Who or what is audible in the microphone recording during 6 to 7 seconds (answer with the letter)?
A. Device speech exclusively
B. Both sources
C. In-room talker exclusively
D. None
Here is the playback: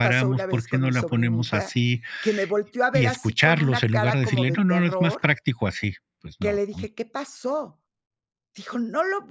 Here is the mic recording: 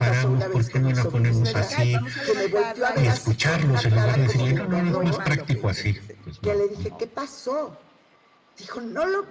B